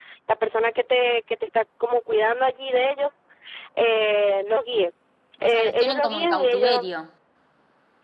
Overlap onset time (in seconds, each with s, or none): 5.4 s